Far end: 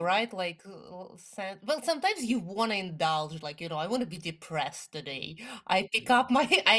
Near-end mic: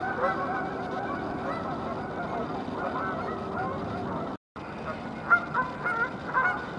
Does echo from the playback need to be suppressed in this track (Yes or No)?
No